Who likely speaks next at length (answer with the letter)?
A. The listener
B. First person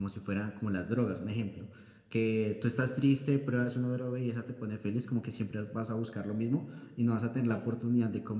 B